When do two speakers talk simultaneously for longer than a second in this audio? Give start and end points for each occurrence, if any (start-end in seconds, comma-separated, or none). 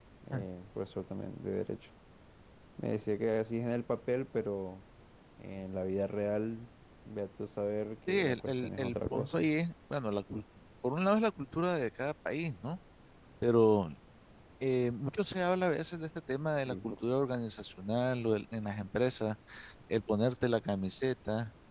8.1-9.5